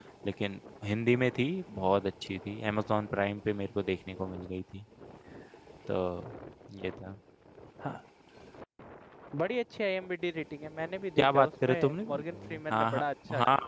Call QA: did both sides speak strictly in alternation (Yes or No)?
No